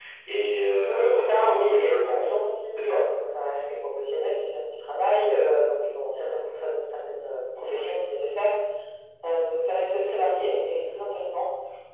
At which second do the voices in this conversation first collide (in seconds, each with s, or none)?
0.9 s